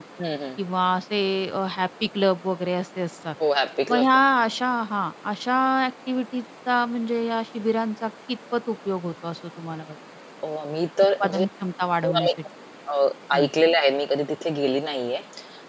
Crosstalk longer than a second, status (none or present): none